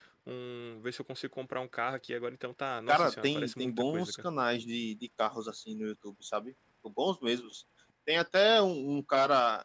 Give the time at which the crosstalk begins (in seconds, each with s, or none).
2.9 s